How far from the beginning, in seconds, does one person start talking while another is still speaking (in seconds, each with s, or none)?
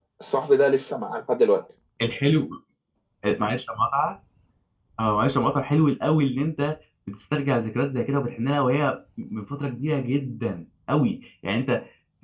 none